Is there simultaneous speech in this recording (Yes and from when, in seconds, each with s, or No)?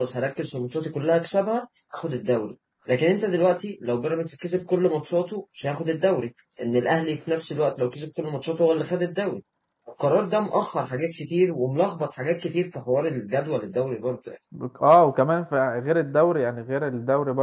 No